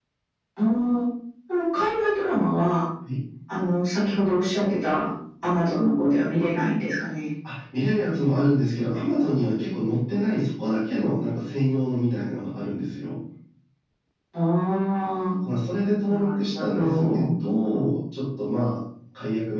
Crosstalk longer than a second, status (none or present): present